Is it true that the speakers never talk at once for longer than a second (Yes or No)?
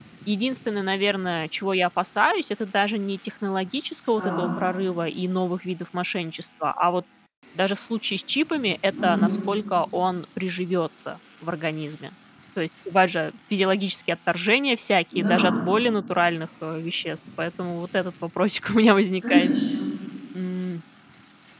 Yes